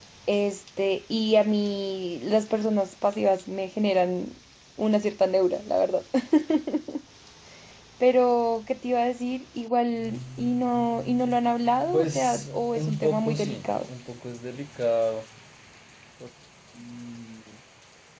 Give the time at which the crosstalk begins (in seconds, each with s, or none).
11.9 s